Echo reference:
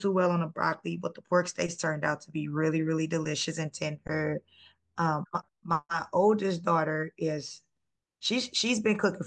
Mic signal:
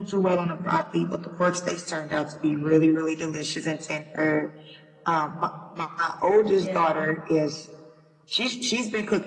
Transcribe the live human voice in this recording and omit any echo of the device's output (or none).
Yeah.